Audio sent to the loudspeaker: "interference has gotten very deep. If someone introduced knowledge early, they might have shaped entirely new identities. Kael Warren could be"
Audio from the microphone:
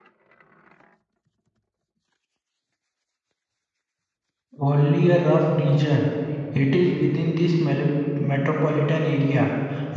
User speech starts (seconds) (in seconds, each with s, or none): 4.6 s